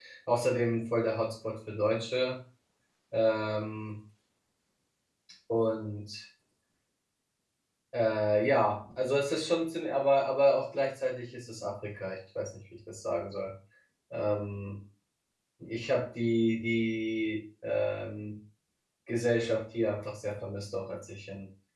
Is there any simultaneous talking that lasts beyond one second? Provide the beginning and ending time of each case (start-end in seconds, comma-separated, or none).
none